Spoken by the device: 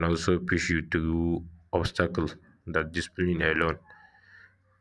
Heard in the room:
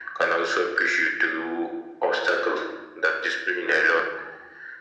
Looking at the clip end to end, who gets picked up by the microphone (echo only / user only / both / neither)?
echo only